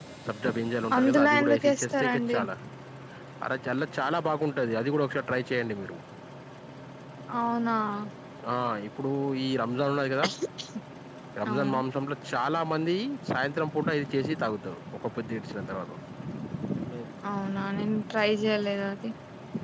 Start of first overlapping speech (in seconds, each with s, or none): 1.0 s